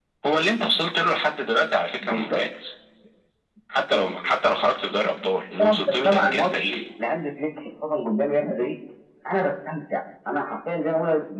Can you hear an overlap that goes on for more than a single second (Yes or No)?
Yes